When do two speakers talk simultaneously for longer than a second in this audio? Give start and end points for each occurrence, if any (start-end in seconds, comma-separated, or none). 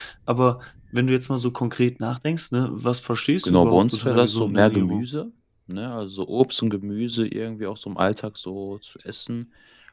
3.4-5.0